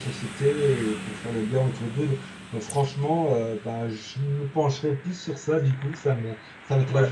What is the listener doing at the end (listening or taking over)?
taking over